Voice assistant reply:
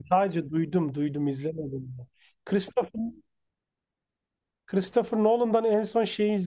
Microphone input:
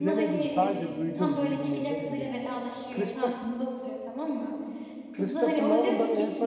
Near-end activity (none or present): present